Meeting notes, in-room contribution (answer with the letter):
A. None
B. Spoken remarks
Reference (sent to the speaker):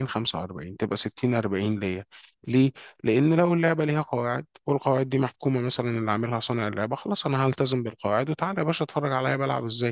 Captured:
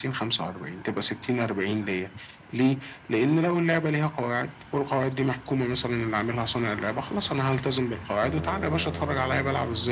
A